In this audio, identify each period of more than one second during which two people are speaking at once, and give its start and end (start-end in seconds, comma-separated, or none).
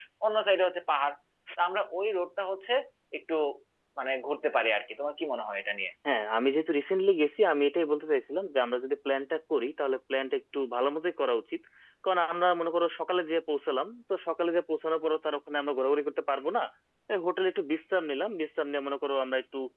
none